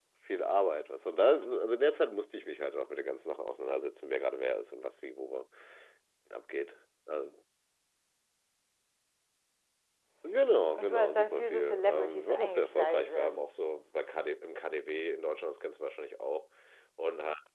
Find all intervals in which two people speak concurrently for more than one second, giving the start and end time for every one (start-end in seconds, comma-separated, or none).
10.8-13.4